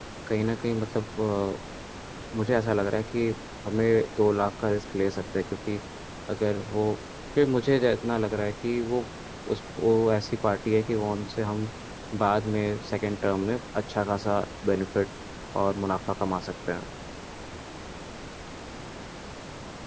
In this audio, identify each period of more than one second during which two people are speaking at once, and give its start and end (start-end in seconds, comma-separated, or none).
none